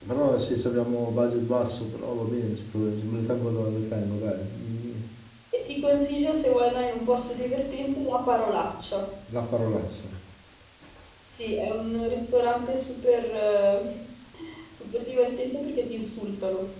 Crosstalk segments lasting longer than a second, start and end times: none

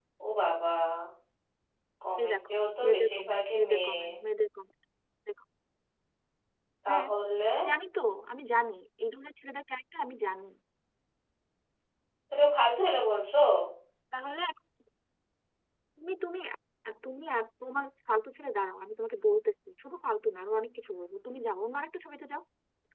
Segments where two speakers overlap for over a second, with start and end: 2.2-3.9

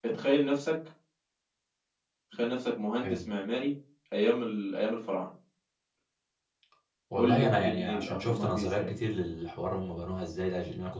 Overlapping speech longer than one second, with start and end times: 7.1-8.9

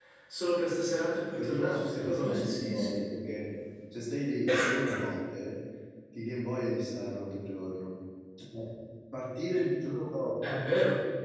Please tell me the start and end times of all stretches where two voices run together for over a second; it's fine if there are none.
1.4-3.0

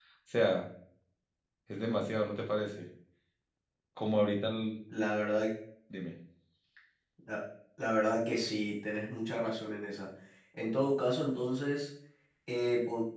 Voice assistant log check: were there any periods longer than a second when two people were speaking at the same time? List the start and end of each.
none

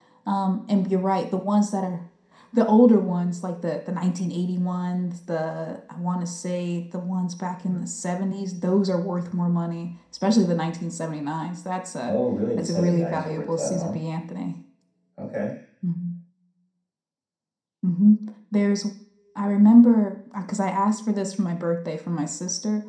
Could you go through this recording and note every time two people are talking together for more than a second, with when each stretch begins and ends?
12.6-14.0

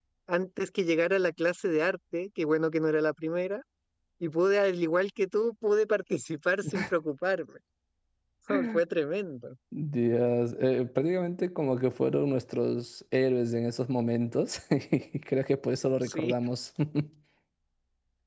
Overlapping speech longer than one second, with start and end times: none

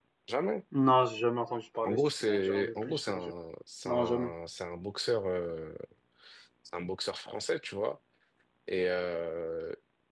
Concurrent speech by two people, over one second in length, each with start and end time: 1.8-3.3

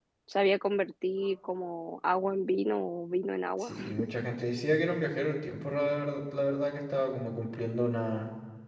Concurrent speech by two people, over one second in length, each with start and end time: none

